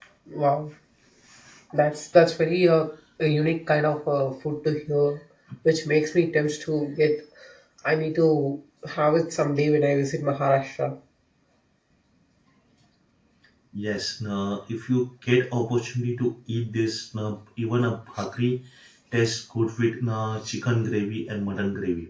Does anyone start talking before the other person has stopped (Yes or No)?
No